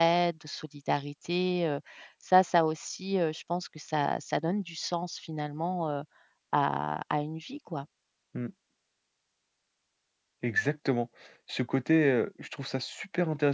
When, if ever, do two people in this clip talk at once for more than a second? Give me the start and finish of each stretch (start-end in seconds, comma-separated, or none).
none